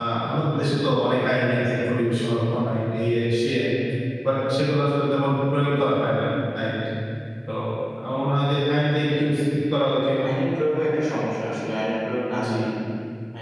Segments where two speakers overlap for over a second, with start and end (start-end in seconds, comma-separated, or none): none